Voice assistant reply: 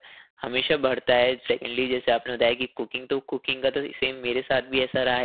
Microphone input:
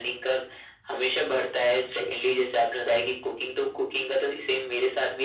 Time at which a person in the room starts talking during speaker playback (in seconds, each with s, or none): none